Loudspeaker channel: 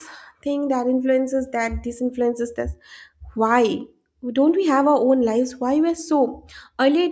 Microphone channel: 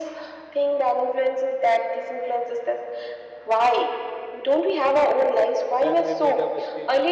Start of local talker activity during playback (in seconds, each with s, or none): 5.8 s